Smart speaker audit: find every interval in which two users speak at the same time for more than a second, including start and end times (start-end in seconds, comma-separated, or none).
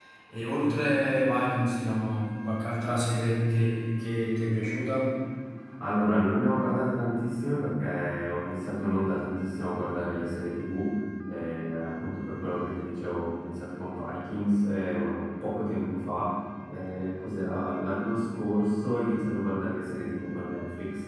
none